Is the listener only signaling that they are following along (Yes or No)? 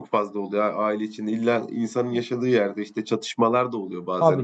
No